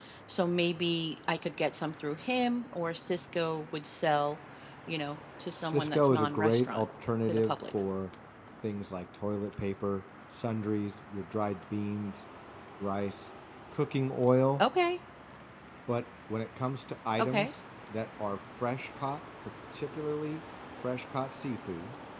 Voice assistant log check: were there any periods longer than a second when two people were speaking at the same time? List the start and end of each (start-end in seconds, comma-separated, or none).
5.5-6.8